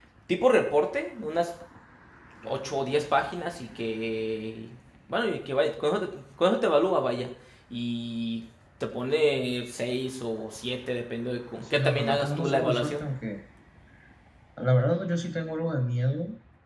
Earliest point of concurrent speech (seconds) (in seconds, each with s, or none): 11.6 s